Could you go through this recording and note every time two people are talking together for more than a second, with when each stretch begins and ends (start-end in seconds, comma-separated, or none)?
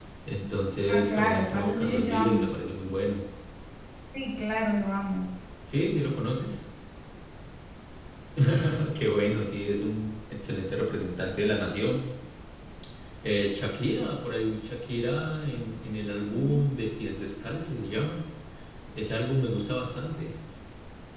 0.9-2.6